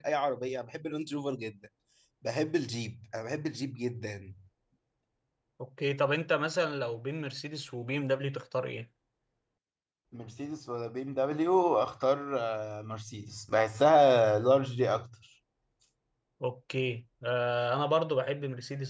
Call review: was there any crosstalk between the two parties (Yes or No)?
No